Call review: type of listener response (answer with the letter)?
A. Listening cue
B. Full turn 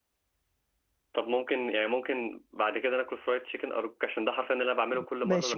B